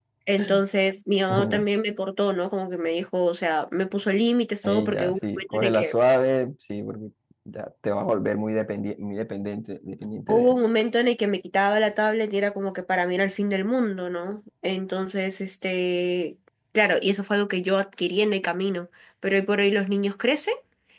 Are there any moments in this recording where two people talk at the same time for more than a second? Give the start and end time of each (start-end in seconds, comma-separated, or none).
4.6-5.9